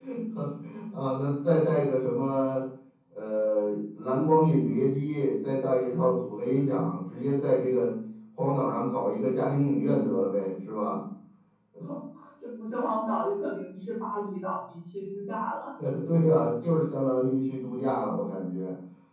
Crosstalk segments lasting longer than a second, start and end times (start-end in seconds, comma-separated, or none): none